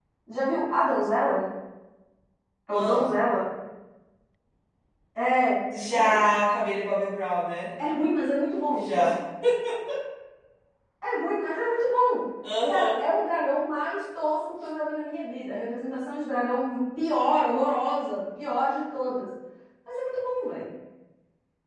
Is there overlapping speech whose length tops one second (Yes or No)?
No